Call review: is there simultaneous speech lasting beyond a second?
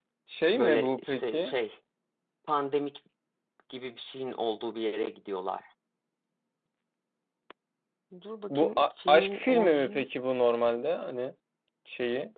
Yes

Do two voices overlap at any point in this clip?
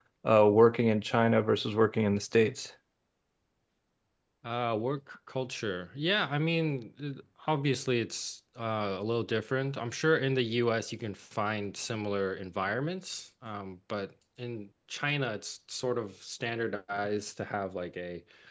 No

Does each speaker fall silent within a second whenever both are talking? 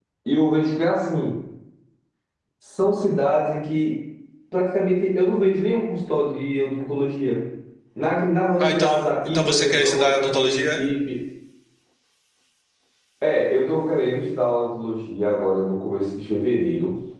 No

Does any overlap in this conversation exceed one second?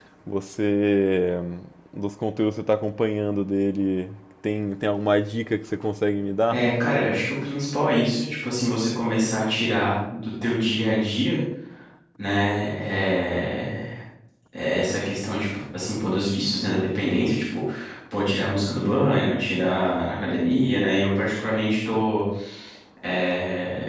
No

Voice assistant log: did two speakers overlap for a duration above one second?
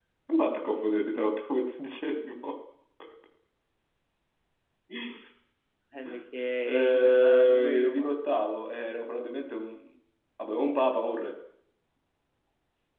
Yes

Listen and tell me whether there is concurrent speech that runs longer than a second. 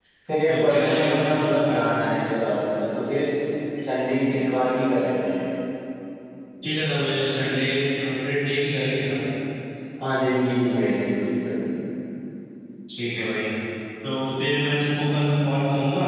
Yes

